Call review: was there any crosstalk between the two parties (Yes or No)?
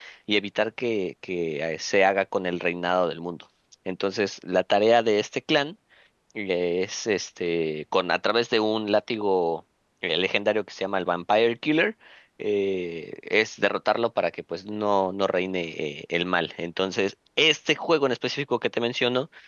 No